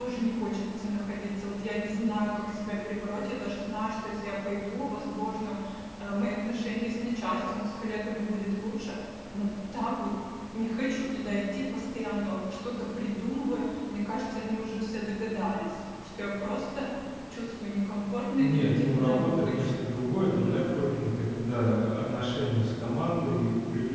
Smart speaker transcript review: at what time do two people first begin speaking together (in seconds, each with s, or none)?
18.4 s